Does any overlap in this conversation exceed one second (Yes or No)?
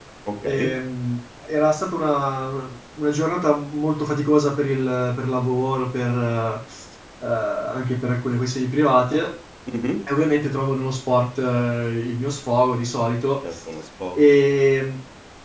No